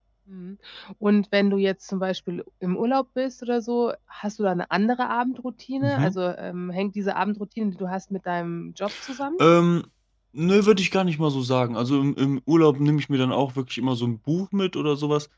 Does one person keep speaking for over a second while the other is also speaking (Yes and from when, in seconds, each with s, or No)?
No